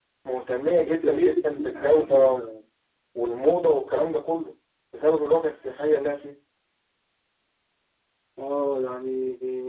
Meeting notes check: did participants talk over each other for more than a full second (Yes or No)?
Yes